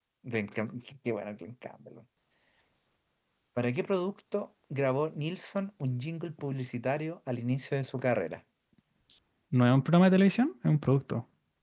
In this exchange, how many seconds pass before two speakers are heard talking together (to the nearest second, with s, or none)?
none